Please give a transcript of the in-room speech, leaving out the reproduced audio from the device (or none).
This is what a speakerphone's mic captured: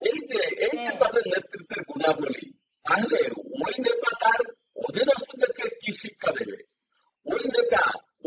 হ্যাঁ।